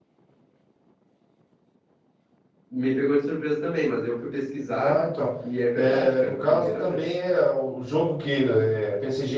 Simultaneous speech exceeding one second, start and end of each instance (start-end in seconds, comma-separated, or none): 5.8-7.0